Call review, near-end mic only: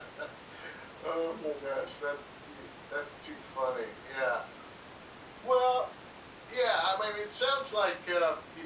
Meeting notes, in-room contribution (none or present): none